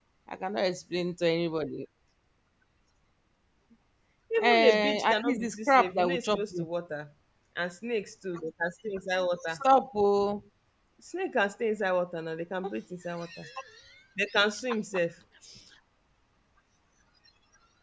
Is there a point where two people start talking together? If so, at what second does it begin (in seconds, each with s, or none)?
4.4 s